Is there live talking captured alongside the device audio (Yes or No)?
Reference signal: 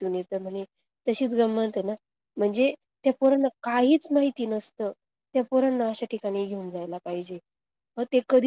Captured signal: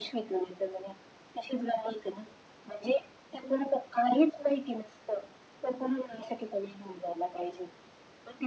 No